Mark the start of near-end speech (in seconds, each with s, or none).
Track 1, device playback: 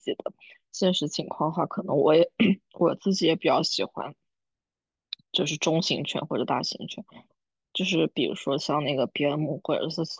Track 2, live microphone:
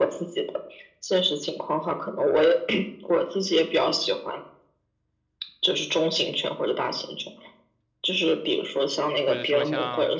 9.2 s